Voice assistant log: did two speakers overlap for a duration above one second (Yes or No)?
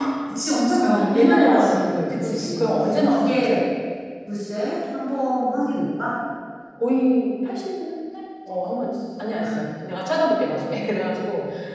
Yes